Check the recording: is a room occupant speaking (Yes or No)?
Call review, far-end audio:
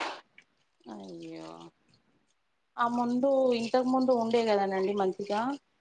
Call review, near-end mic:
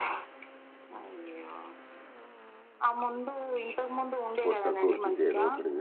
Yes